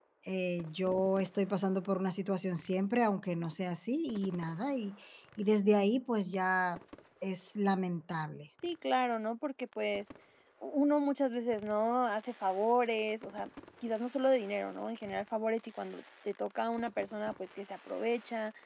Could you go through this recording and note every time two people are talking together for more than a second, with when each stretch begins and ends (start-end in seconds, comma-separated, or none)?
none